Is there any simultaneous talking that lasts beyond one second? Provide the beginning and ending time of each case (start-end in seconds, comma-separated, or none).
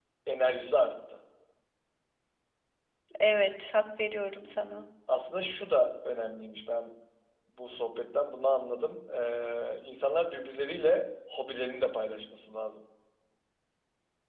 none